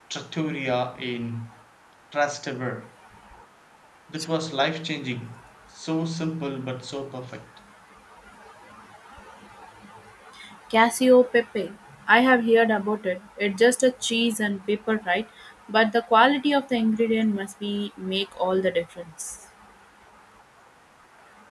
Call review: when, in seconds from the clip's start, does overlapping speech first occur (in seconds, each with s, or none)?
none